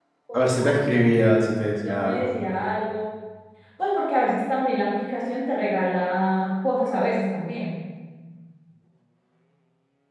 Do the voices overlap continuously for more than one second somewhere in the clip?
No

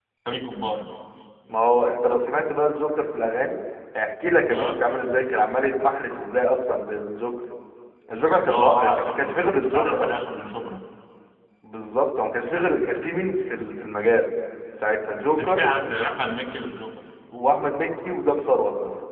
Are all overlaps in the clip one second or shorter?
No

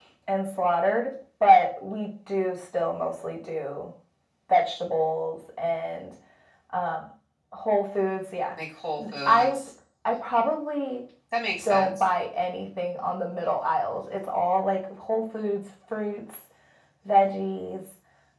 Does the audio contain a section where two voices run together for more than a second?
No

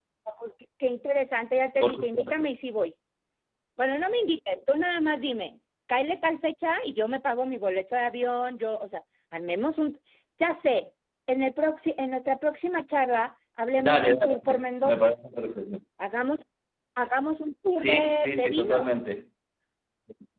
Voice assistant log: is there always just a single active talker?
No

